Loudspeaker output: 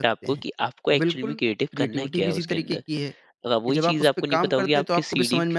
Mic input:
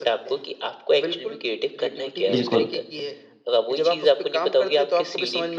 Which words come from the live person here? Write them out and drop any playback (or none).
बिल्कुल,